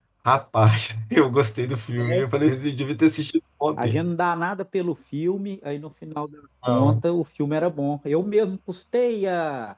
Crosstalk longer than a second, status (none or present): none